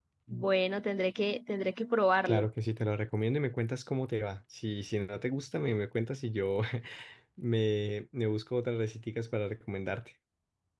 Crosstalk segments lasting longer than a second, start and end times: none

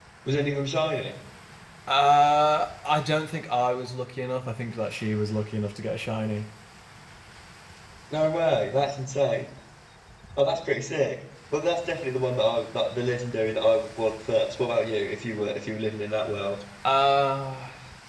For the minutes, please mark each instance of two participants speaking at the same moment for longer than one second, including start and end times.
none

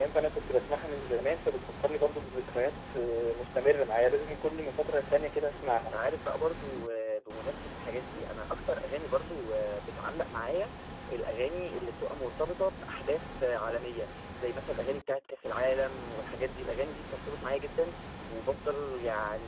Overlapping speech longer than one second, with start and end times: none

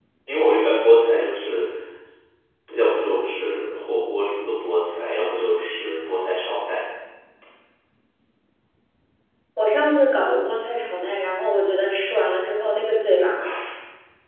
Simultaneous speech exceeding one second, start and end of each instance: none

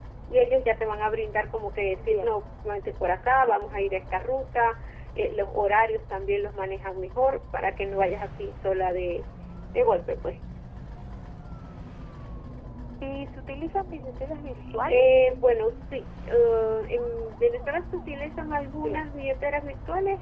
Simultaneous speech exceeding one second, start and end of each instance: none

